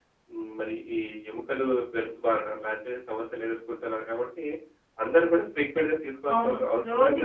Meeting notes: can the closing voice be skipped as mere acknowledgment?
No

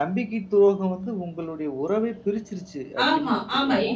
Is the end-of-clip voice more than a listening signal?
Yes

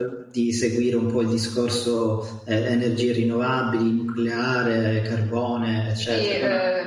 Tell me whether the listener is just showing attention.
No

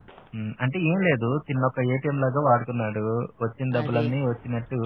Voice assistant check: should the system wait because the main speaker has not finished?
Yes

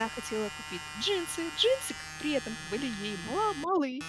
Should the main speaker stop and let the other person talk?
No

